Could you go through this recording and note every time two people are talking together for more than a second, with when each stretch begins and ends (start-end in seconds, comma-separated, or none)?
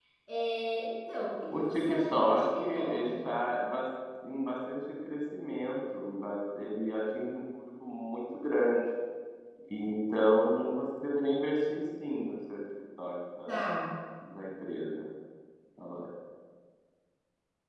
1.5-3.2